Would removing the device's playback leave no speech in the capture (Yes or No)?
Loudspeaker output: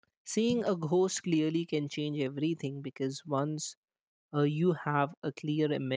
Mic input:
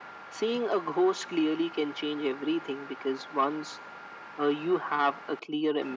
Yes